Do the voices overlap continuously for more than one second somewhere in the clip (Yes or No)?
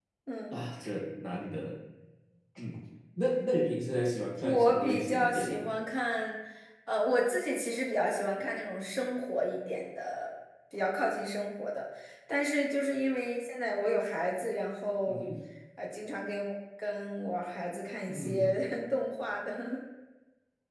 Yes